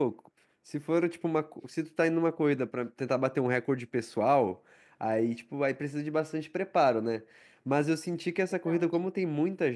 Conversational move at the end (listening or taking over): listening